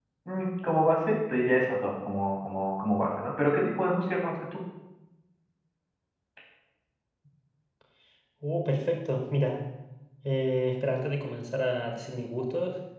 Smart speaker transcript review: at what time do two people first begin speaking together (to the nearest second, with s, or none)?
none